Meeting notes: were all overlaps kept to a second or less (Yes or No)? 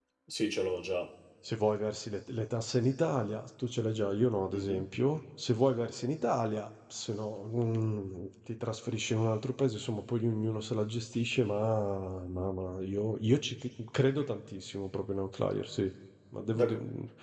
Yes